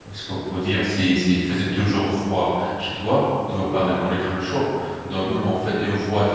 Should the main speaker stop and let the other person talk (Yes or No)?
No